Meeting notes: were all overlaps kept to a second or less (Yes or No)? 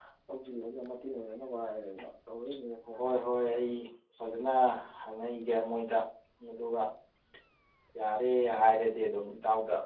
Yes